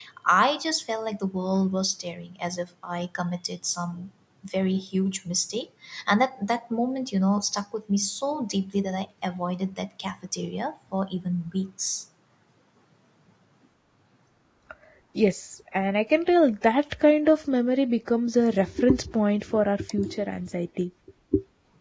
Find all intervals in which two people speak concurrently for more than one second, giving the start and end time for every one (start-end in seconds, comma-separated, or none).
none